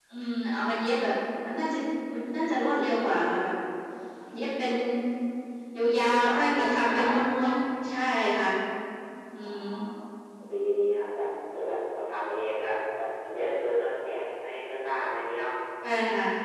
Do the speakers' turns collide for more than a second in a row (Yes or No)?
Yes